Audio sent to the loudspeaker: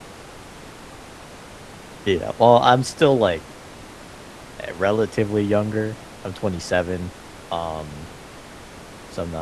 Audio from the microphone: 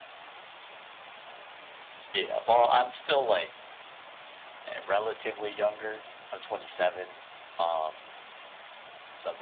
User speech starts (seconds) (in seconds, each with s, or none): none